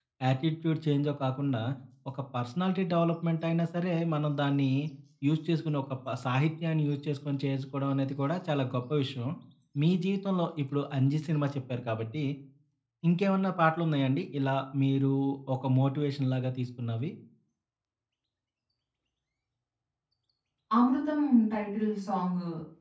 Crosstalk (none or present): none